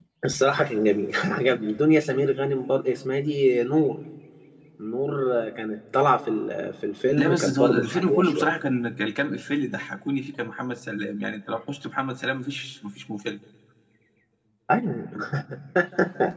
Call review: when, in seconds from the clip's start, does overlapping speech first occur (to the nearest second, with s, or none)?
7 s